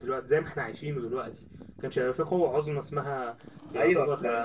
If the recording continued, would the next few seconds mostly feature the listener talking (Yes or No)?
Yes